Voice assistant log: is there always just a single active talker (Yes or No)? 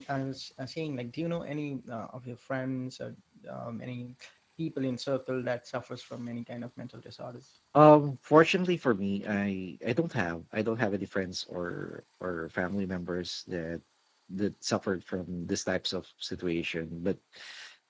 Yes